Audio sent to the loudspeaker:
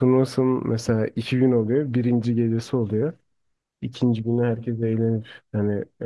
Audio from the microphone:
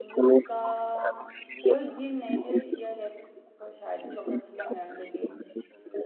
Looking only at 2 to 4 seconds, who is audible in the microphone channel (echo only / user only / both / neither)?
both